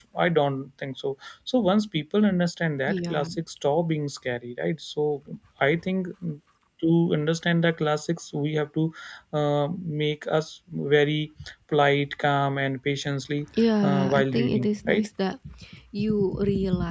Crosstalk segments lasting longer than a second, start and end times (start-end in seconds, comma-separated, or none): 13.8-15.1